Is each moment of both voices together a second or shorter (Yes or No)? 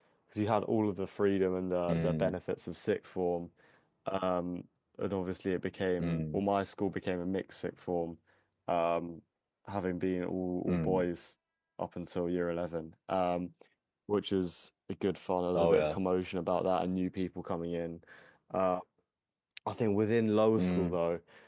Yes